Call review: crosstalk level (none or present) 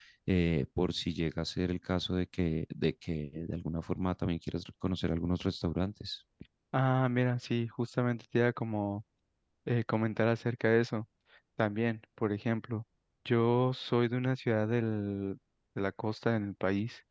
none